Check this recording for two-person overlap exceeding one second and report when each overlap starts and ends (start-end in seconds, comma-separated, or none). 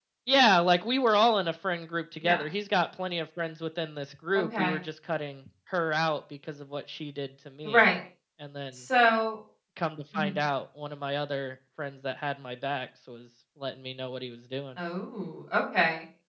none